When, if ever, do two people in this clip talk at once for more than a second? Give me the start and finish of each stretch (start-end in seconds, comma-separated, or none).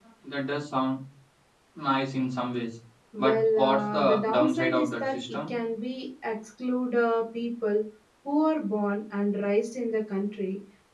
3.2-5.5